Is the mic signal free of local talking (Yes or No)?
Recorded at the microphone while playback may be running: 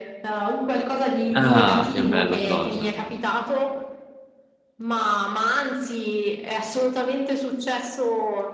No